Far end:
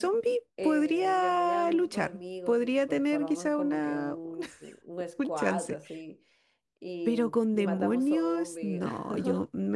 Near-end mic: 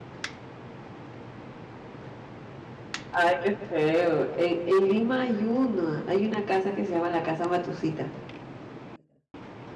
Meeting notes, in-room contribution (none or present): present